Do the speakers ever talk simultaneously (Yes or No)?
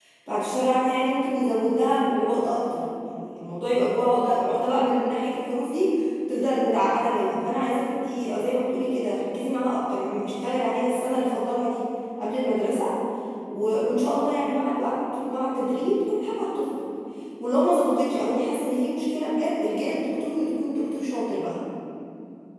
No